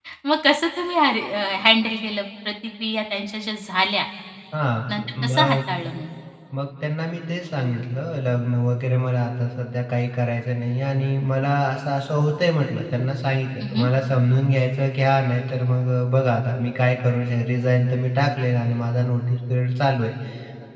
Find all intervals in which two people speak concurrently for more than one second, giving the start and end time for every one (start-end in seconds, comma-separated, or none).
none